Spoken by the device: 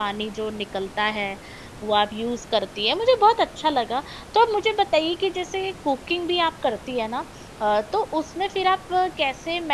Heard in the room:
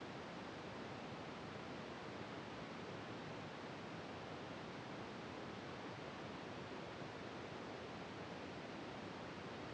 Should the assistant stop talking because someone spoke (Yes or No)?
No